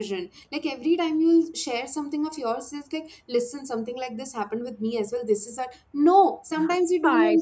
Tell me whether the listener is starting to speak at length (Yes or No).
No